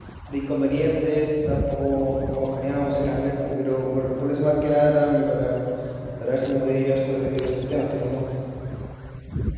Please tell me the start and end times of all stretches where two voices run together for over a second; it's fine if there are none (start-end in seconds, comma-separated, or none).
none